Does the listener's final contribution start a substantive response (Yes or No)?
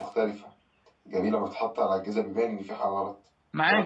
Yes